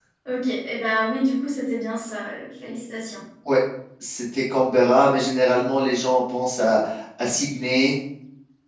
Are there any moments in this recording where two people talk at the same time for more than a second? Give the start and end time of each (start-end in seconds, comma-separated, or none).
none